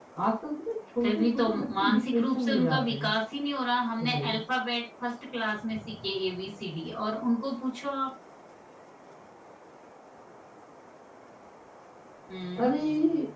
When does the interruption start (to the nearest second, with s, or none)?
1 s